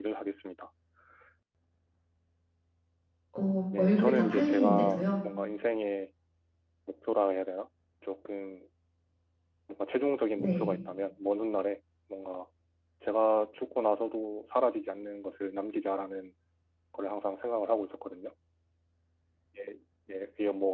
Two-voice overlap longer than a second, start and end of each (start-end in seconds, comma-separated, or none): 3.8-5.1